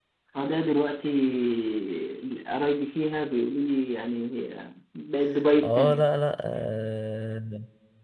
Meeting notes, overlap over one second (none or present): none